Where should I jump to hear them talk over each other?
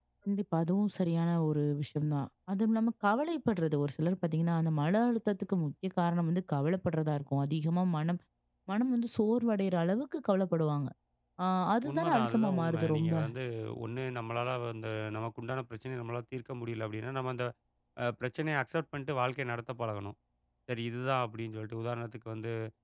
12 s

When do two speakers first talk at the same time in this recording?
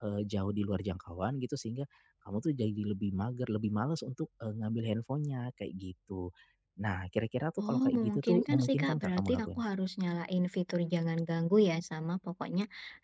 8 s

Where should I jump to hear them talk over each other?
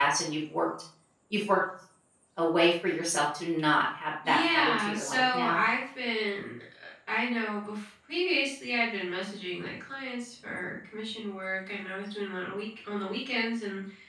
4 s

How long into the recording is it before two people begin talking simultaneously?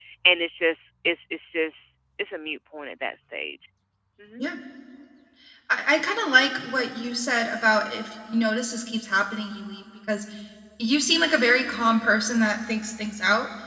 none

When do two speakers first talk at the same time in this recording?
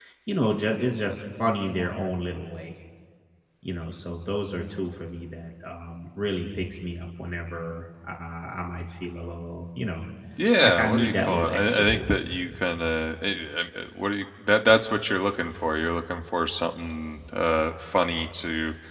11 s

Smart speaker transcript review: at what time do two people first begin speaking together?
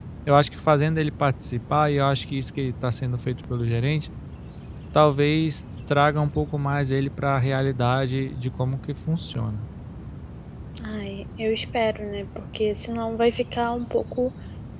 none

